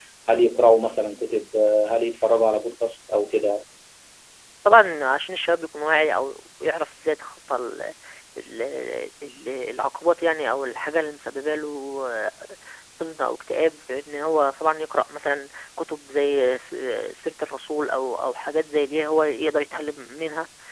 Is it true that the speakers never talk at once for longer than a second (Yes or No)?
Yes